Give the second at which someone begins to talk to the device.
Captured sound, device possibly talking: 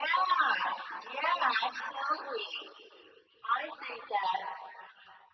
none

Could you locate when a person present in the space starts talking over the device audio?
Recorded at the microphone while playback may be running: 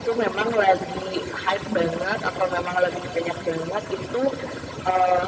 none

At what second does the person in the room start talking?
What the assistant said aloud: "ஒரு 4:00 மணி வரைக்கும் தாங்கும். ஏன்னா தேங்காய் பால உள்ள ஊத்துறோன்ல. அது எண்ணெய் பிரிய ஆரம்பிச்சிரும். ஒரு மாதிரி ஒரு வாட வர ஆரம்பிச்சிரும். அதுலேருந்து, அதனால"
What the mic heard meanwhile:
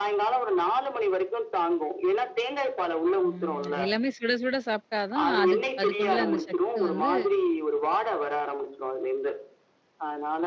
3.2 s

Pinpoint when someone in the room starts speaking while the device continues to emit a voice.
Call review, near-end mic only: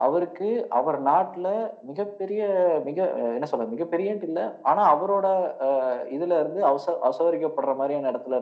none

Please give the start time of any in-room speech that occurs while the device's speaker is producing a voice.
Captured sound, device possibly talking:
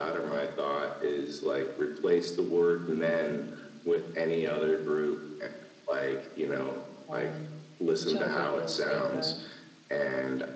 7.1 s

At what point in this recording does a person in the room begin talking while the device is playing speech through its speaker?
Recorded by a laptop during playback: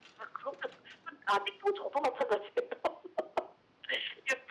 none

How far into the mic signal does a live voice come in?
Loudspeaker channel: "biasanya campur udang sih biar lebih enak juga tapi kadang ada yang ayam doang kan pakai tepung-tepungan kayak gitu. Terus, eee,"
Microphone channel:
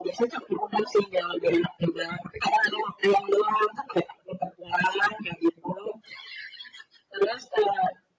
none

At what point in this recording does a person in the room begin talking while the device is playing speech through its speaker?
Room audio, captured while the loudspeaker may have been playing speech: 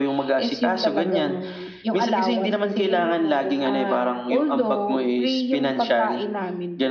2.9 s

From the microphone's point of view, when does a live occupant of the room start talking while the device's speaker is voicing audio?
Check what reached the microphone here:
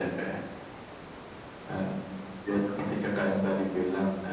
none

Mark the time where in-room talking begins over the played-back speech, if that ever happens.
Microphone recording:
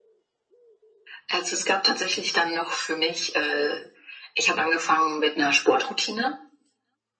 none

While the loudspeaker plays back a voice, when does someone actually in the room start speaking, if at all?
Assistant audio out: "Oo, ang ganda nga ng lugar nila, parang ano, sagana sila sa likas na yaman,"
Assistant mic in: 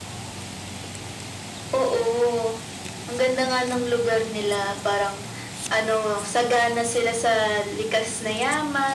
none

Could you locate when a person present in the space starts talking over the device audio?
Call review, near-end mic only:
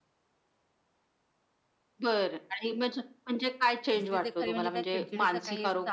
3.9 s

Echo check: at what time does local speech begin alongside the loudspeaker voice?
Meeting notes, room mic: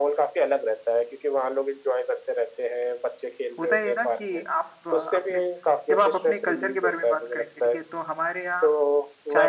3.6 s

